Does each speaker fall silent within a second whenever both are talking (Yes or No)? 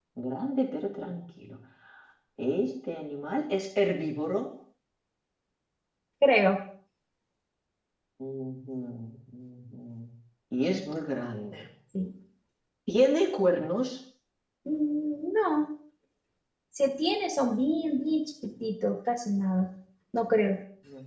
Yes